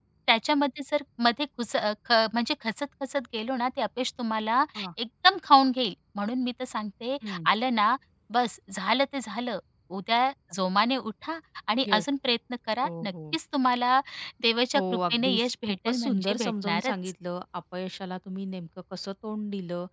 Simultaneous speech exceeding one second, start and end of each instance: 14.7-16.9

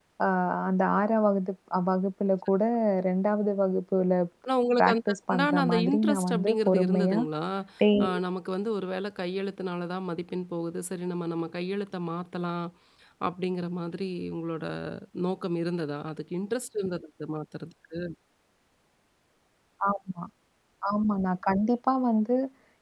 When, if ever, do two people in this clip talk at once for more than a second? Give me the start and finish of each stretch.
4.8-7.2

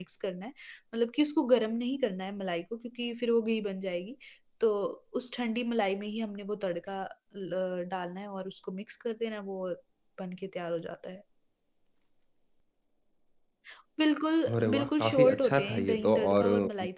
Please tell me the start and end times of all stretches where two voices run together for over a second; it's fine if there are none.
14.6-16.5

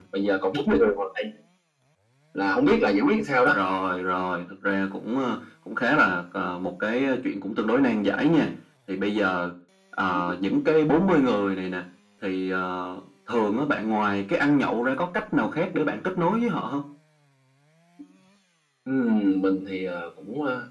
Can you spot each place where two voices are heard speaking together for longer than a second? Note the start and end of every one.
none

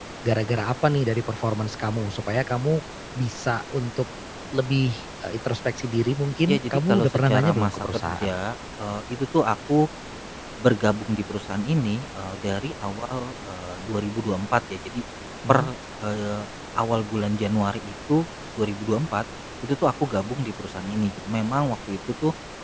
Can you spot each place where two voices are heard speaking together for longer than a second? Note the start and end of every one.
6.5-8.3

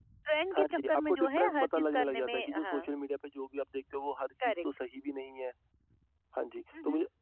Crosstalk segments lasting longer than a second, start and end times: 0.6-2.9

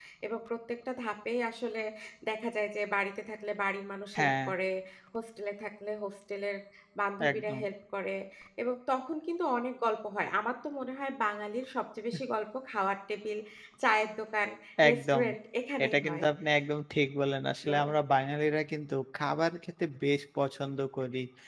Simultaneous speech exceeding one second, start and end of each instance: none

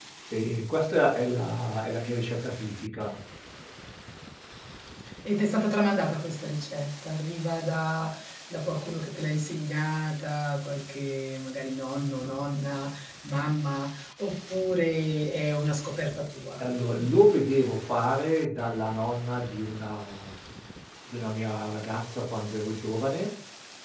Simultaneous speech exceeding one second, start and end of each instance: none

